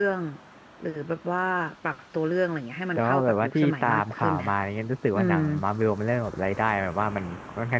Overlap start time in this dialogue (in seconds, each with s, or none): 3.0 s